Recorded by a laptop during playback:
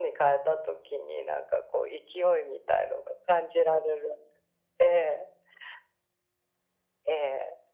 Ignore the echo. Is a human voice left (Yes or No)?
No